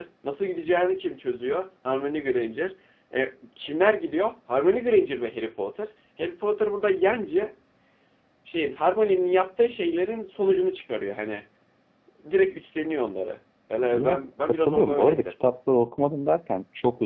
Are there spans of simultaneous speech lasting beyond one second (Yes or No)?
Yes